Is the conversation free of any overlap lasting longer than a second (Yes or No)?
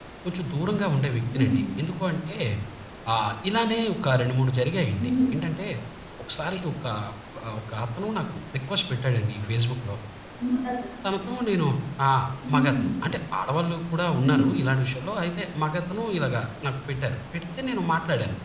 Yes